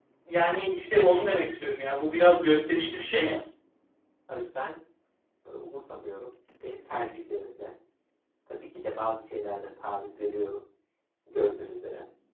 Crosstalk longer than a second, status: none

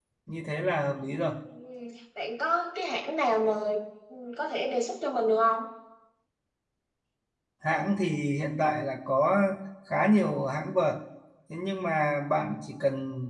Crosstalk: none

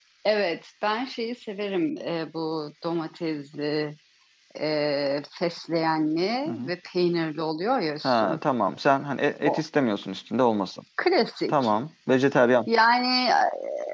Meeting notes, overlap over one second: none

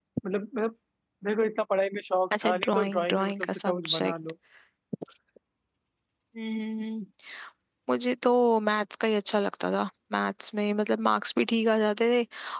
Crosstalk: present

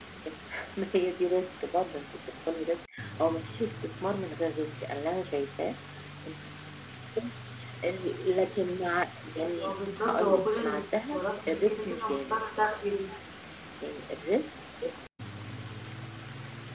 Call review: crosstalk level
present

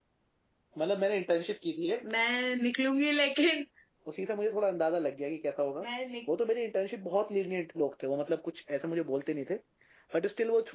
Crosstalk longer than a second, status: none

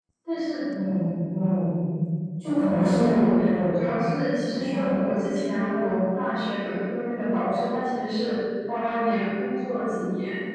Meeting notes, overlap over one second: none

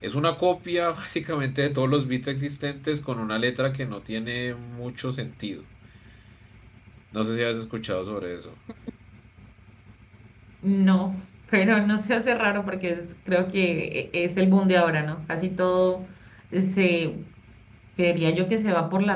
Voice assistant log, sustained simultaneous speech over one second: none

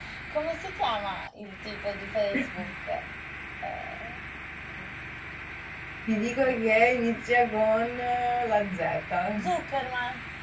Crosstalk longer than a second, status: none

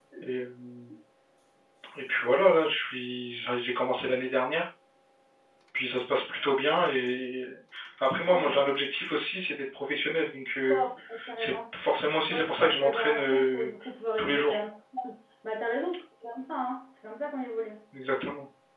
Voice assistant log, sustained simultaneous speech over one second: present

